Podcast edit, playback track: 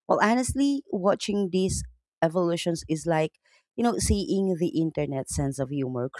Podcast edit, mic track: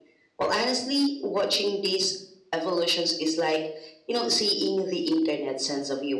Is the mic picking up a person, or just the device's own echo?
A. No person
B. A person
A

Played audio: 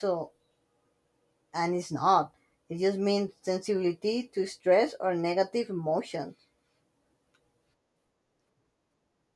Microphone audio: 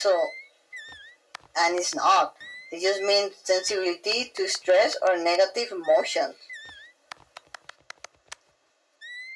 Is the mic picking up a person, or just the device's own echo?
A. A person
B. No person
B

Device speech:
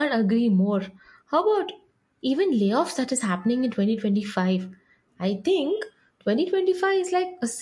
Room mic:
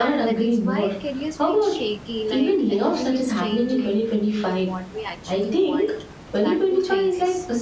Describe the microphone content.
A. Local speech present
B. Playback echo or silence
A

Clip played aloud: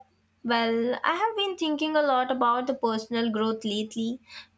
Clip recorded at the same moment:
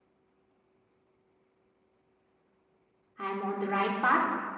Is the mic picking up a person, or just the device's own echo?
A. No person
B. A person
B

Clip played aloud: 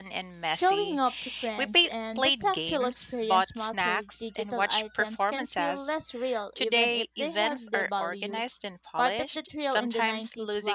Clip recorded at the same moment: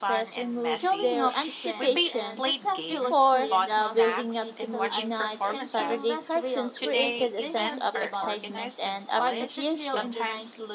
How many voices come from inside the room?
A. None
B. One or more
B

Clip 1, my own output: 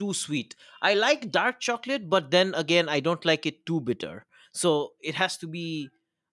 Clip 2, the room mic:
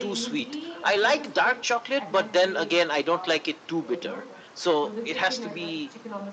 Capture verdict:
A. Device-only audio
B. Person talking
B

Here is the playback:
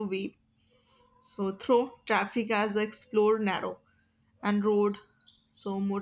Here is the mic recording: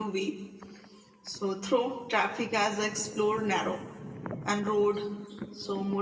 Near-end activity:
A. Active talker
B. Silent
B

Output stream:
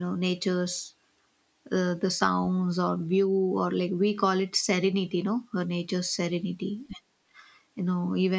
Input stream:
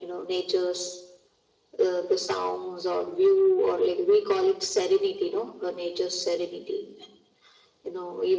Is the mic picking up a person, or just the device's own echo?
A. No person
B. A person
A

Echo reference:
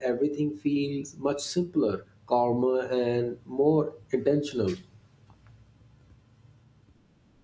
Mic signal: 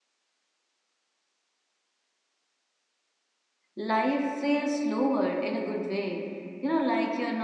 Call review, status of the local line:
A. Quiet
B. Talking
B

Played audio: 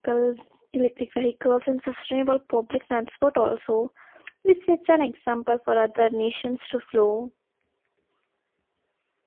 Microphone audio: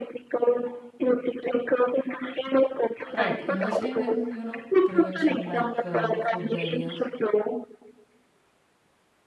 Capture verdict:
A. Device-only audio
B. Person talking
B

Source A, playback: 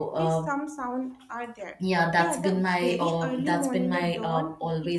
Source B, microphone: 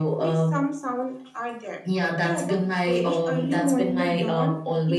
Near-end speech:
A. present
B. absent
B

